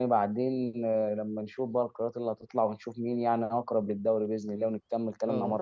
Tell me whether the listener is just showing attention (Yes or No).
No